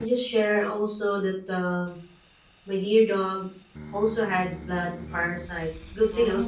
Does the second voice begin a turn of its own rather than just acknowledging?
No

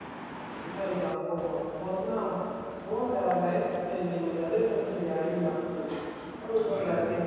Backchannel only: Yes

